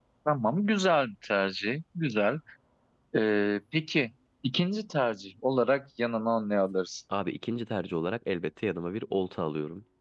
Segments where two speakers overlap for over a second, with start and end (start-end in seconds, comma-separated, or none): none